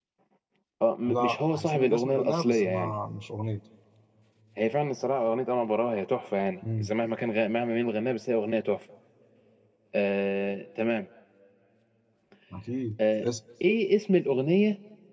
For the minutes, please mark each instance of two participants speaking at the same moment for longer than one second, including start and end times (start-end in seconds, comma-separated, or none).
1.1-2.9